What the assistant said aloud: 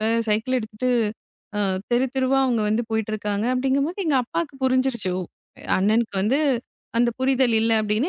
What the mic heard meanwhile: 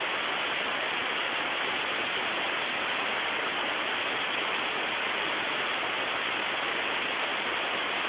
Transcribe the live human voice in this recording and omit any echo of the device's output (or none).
none